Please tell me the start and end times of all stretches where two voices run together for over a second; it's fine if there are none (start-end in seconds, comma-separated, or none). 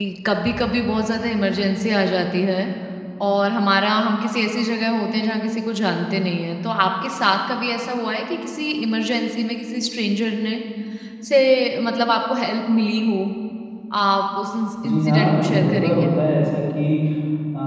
14.8-16.1